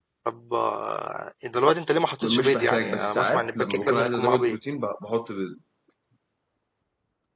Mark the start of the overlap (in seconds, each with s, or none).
2.2 s